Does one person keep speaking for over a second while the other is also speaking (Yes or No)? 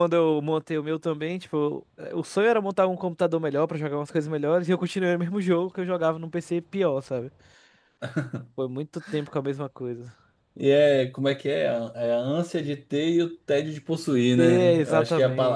Yes